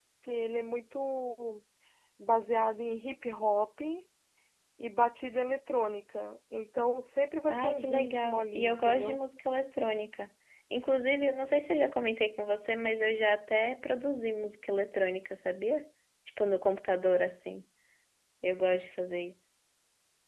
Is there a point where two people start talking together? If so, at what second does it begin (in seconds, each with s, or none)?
7.5 s